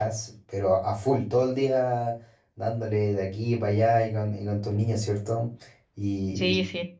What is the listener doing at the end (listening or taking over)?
taking over